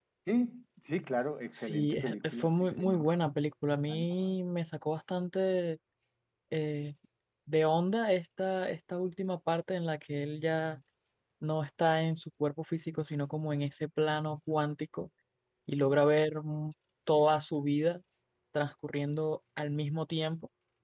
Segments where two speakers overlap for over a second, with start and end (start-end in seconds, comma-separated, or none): 1.6-3.1